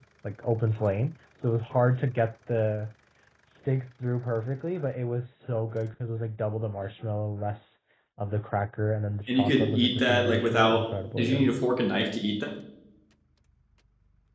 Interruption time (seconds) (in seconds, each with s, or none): 9.3 s